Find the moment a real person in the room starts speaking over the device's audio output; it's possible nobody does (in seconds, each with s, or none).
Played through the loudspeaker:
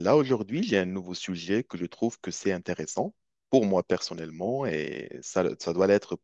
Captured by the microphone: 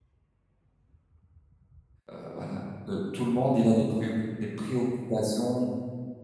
2.1 s